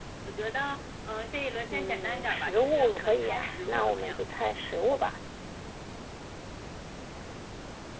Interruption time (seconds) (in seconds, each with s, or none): 1.7 s